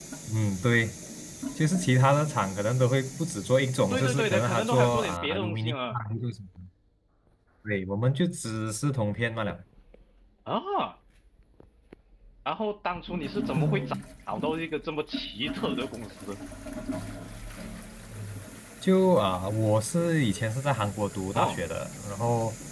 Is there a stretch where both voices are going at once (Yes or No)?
Yes